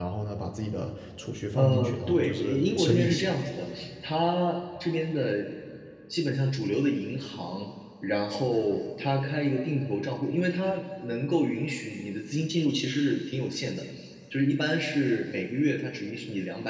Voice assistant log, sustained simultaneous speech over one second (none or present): present